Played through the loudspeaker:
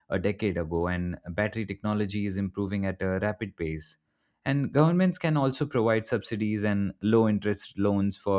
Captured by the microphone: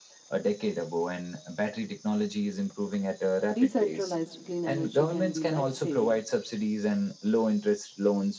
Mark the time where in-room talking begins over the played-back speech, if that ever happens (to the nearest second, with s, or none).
4 s